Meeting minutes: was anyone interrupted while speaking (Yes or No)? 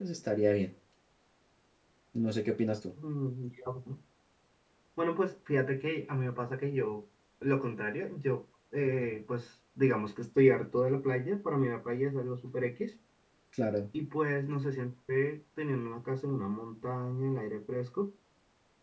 No